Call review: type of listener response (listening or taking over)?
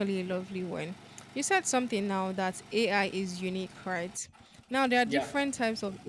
listening